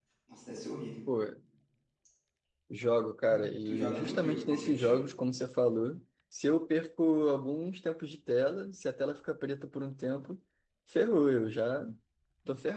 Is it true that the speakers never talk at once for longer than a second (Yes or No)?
No